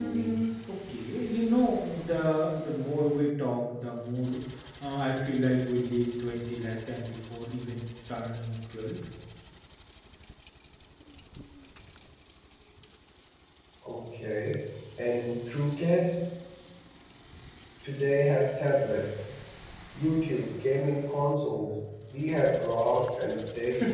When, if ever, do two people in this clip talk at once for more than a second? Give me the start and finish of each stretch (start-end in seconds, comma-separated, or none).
none